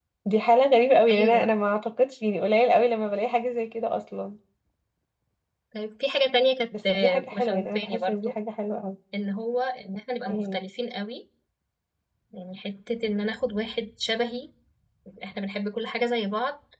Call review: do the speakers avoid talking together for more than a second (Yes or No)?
No